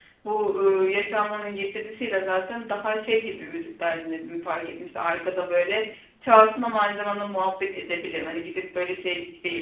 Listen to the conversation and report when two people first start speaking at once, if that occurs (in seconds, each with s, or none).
none